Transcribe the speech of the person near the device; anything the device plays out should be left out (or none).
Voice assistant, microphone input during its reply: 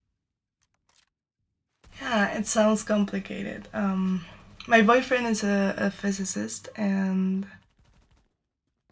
Yeah, it sounds complicated. Um, my boyfriend is a, a physicist and